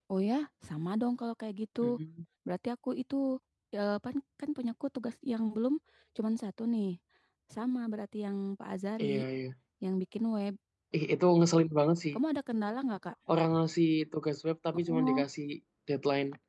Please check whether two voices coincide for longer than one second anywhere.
No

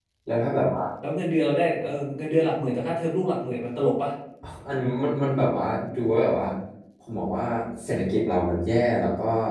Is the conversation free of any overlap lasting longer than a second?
Yes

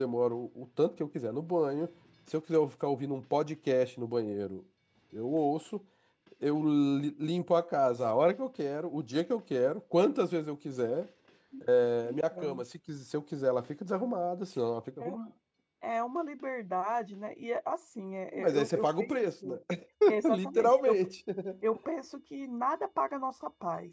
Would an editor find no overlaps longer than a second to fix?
No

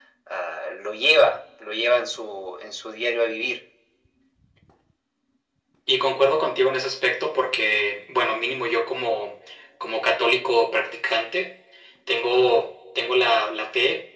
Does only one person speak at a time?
Yes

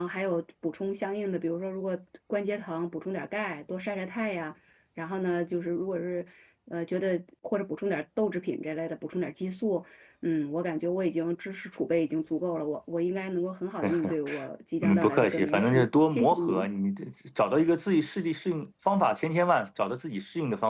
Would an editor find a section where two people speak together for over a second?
Yes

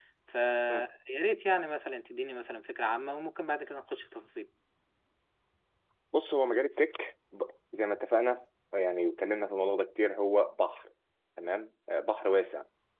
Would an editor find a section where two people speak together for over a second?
No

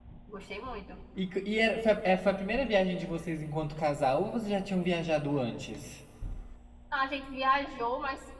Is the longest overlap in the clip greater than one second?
No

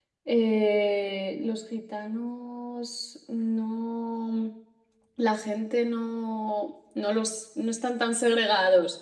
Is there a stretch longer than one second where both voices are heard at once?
No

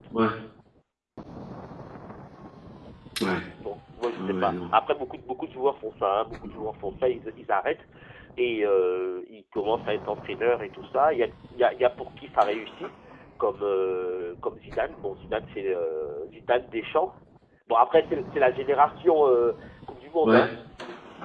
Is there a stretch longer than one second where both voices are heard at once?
No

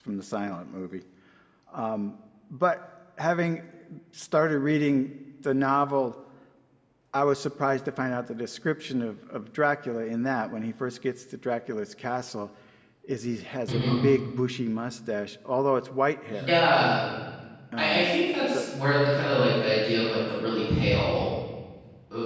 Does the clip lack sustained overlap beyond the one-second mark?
Yes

